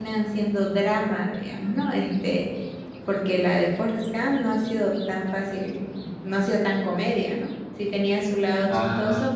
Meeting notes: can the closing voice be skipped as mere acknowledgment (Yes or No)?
Yes